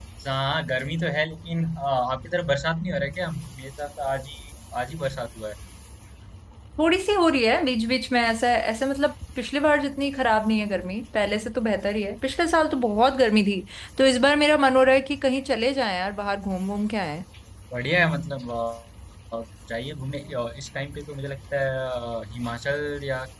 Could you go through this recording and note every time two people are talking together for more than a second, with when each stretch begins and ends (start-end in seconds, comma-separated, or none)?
none